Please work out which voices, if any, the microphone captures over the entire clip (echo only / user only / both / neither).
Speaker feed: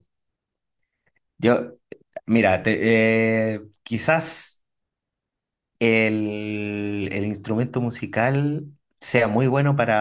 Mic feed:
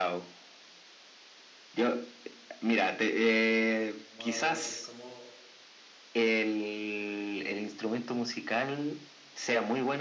both